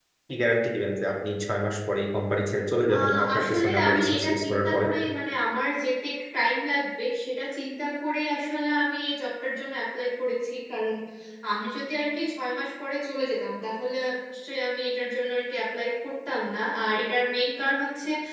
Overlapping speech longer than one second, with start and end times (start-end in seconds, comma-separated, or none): 2.9-4.8